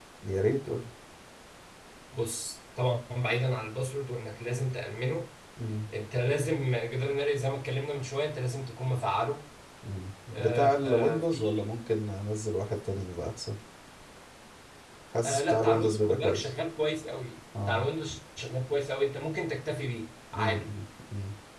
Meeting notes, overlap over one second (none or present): present